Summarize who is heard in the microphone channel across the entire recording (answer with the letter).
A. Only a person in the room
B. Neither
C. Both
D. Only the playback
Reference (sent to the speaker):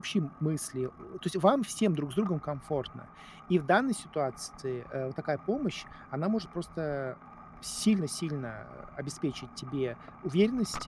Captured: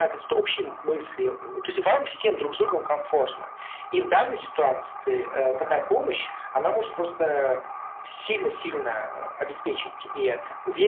D